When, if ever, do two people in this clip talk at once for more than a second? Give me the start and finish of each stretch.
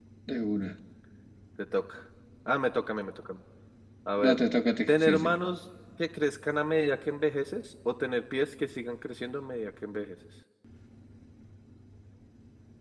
none

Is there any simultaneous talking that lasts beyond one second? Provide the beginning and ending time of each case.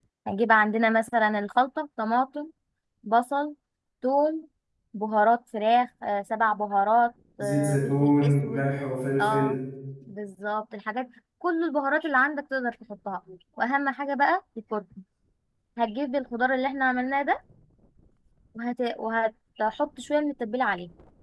7.4-8.6

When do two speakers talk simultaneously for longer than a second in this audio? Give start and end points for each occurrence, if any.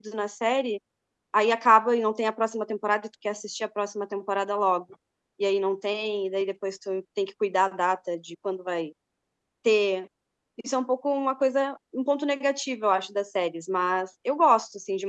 none

